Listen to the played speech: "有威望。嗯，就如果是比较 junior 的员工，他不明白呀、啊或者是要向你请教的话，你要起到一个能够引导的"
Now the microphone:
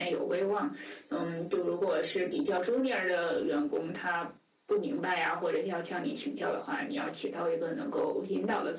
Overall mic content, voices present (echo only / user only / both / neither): echo only